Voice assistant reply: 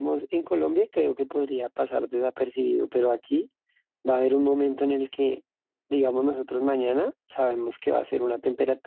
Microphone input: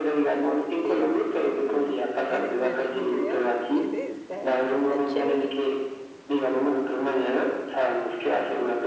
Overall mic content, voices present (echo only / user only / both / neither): both